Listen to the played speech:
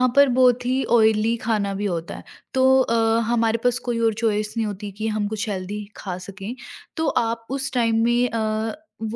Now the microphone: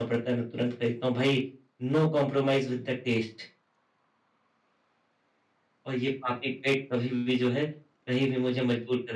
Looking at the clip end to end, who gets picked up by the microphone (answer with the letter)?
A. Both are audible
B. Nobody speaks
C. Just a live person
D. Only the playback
C